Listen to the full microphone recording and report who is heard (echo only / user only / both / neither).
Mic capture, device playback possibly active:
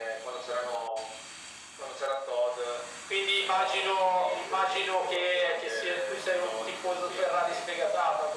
echo only